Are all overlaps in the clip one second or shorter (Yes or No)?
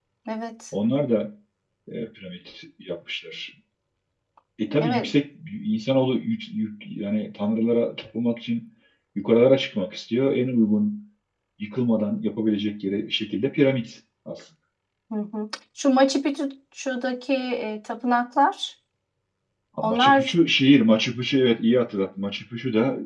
Yes